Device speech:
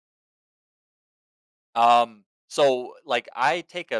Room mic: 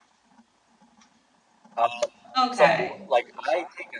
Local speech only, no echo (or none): Okay.